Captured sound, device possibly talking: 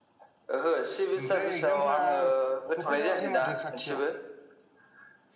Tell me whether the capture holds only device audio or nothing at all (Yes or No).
No